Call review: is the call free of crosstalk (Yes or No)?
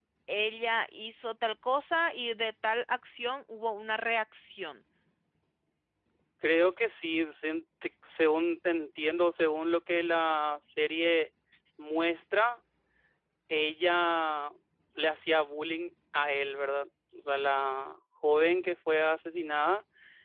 Yes